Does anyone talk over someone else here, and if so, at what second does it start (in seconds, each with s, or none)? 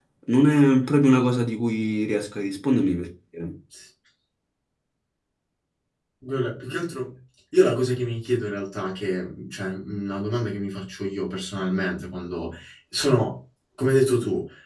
none